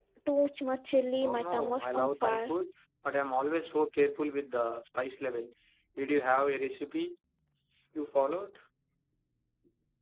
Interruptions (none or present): present